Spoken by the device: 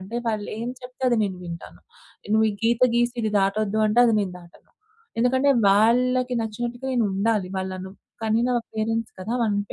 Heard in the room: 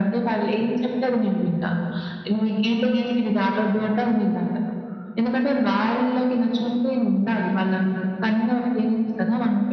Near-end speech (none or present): none